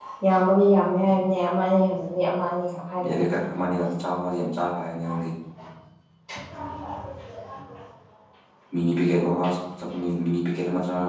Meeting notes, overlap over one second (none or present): none